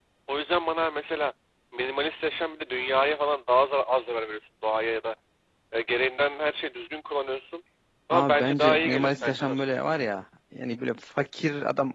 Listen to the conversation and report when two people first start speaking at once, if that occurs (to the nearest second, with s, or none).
8 s